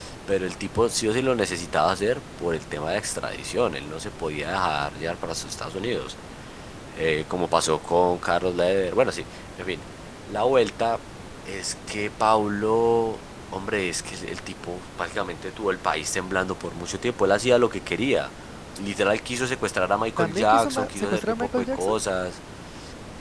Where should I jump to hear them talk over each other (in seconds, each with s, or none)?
20.2 s